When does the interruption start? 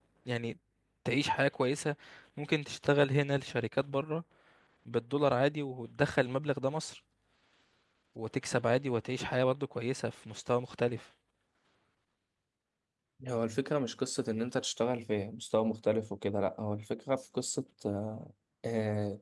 none

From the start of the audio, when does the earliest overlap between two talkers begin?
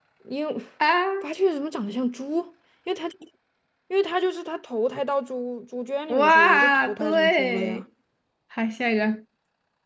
6.1 s

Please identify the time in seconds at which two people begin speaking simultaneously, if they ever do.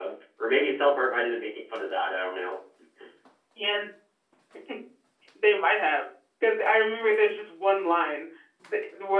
none

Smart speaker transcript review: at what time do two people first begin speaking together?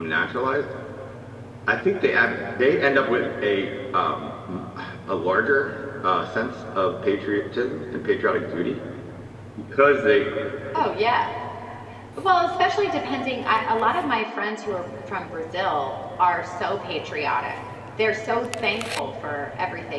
none

